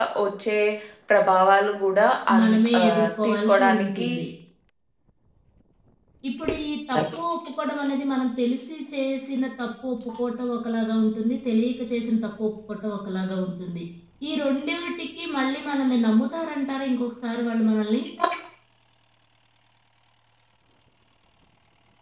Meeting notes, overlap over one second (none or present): present